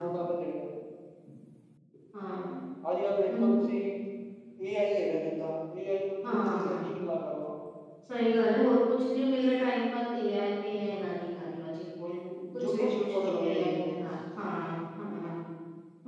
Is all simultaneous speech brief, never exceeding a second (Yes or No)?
No